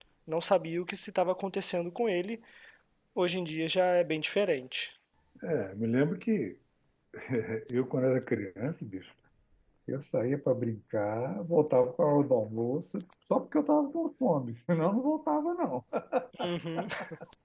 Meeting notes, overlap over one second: none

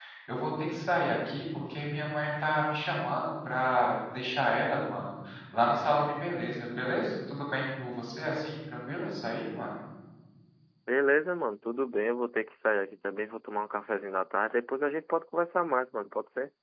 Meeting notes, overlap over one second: none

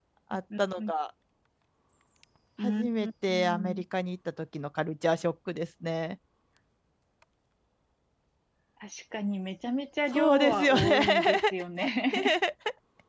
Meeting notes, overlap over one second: present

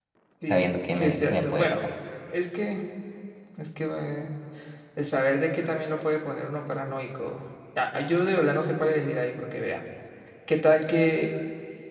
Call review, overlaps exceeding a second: present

